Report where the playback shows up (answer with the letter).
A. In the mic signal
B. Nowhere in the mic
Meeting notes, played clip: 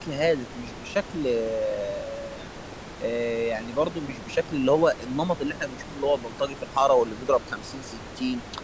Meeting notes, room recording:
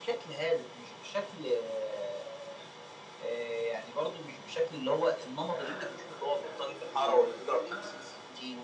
A